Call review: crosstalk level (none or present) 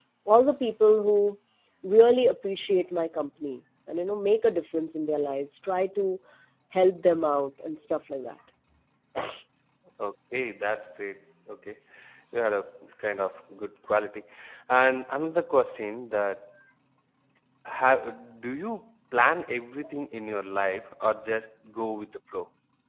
none